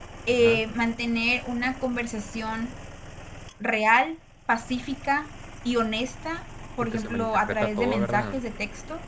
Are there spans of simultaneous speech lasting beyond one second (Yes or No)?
Yes